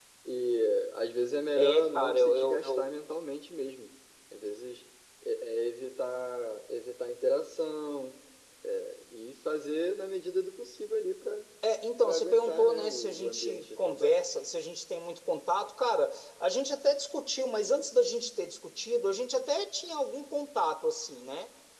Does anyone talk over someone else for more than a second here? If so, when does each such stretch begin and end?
1.6-2.9, 12.0-14.2

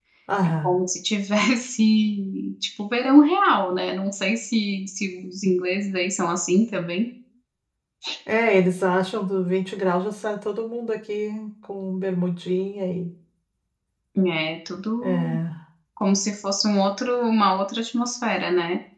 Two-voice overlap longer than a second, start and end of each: none

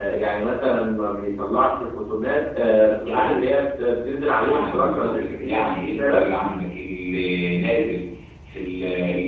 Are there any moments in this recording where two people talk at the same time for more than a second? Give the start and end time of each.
4.3-6.2

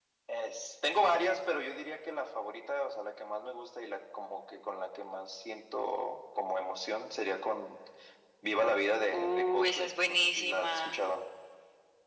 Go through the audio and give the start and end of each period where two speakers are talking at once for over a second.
9.1-11.0

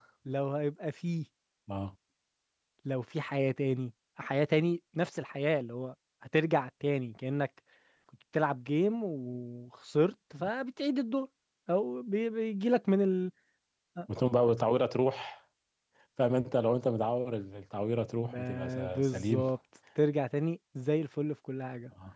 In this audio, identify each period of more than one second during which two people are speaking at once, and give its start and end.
18.2-19.5

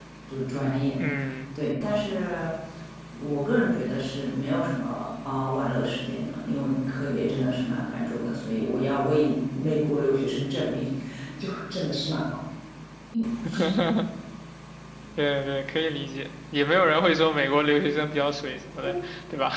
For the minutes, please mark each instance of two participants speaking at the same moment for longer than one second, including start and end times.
none

